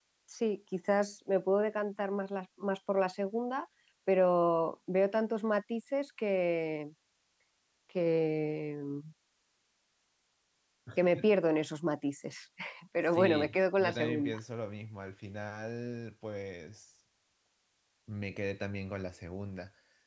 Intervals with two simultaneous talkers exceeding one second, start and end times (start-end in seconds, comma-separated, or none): 13.1-14.4